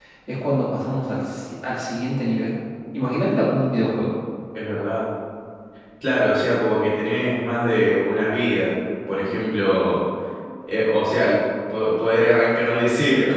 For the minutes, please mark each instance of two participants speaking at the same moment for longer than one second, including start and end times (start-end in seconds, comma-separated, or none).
none